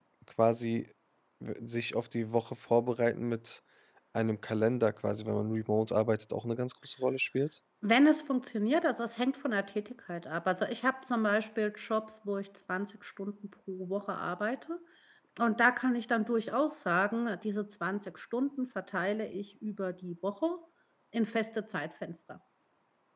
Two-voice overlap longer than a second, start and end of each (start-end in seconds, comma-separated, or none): none